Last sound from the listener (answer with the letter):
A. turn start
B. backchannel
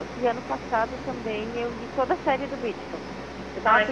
B